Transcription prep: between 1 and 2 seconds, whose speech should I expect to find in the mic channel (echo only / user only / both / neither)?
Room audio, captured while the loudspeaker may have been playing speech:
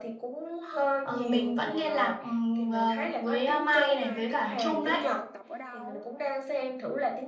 echo only